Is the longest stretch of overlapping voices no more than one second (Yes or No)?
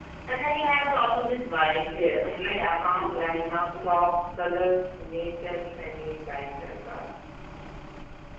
No